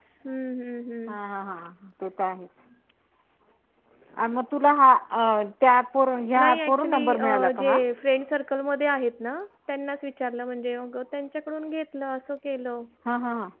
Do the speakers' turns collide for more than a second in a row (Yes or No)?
Yes